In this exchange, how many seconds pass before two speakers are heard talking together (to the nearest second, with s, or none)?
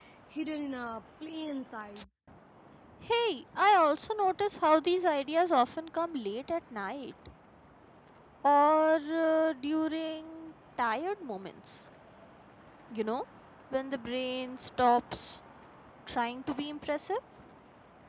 none